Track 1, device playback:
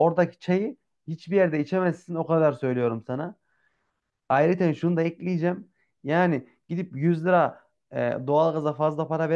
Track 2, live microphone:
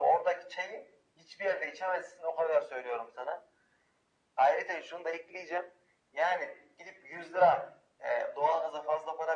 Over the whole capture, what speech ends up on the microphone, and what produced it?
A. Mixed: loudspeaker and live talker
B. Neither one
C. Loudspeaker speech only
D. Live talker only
C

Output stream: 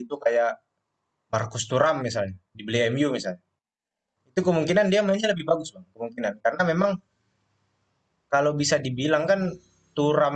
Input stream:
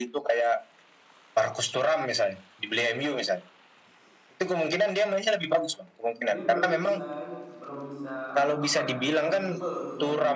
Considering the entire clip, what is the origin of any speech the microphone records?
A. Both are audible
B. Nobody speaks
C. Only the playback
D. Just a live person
A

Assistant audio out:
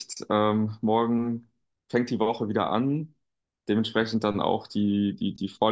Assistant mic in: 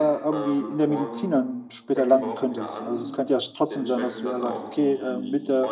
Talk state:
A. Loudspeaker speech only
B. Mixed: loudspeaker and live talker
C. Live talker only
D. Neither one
B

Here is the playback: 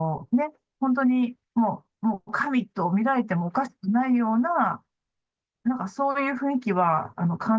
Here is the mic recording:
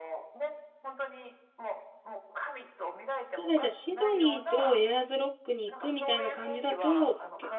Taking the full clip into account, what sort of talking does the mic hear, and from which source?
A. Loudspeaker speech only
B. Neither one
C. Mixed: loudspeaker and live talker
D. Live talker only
C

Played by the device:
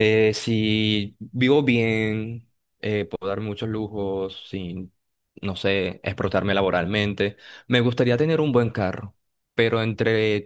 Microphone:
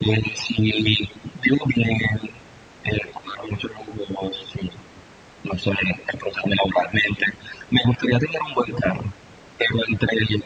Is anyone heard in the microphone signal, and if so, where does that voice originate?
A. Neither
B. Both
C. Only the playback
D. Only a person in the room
C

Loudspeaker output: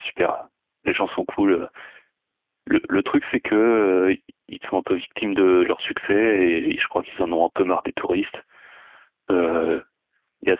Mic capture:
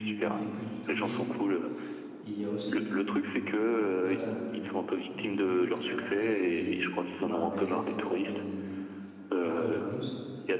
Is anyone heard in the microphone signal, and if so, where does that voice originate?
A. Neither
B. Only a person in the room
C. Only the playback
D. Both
D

